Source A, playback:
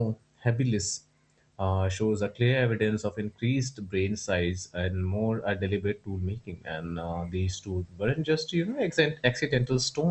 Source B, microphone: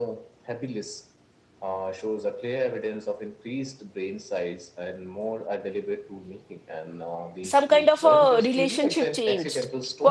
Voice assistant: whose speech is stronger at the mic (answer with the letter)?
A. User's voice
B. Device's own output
A